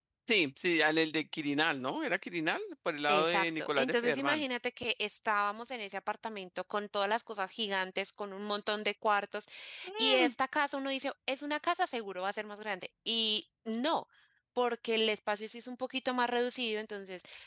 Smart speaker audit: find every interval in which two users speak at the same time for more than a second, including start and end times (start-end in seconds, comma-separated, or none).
3.1-4.4